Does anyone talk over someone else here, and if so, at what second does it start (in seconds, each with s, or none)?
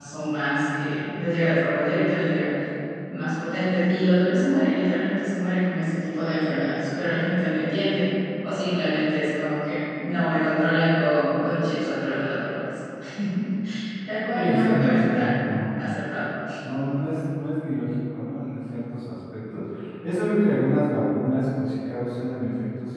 14.4 s